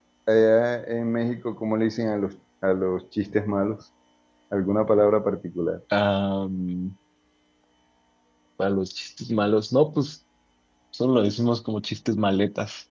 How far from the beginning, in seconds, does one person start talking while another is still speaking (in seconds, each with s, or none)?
none